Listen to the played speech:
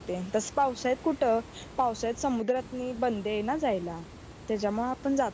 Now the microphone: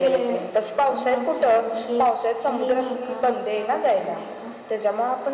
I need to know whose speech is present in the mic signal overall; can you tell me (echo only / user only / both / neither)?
both